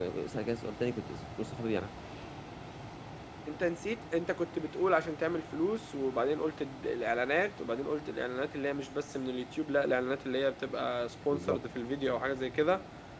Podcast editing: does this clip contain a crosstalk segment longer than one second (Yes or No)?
No